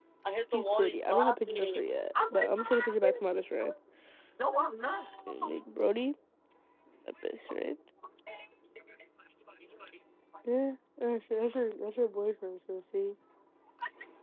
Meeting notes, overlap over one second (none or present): present